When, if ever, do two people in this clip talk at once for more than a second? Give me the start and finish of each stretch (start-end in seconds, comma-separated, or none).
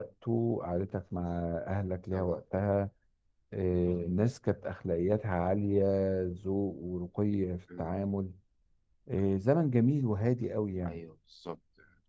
none